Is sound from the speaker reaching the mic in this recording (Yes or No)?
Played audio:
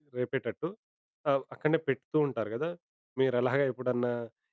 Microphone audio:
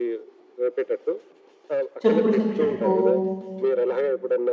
Yes